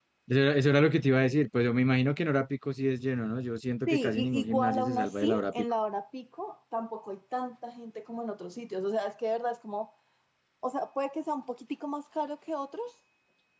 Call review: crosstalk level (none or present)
present